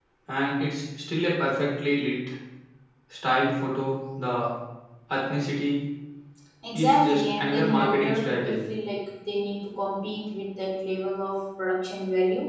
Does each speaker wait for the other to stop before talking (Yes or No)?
No